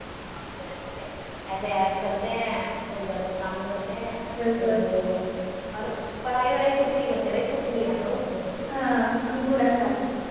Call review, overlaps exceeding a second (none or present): none